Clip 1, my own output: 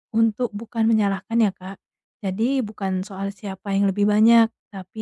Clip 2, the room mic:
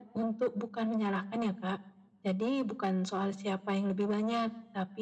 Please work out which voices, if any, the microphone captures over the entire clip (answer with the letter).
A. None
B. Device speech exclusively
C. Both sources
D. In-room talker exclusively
B